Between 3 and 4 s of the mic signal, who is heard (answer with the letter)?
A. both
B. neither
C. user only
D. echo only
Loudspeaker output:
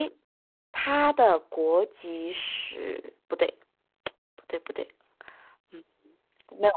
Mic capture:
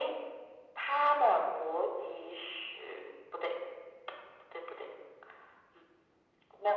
D